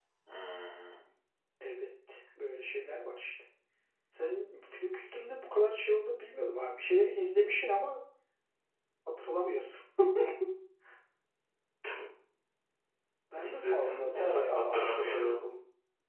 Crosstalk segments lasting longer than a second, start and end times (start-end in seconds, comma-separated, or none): 13.4-15.4